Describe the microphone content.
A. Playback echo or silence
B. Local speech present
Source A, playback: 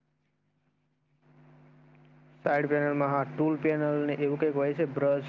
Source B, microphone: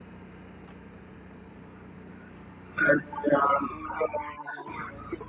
A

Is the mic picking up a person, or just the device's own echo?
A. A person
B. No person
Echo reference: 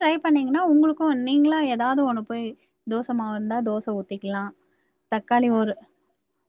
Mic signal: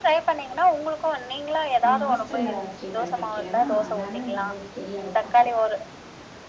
A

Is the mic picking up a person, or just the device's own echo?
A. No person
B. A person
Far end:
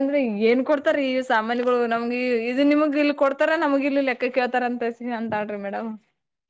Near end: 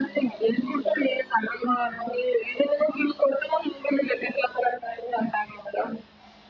B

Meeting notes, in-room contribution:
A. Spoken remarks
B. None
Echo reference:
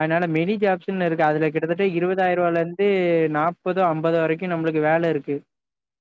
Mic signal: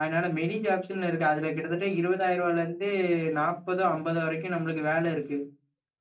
B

